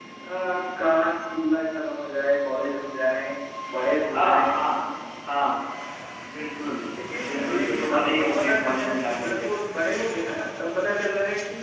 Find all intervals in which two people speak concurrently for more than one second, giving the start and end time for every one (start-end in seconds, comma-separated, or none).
7.2-9.5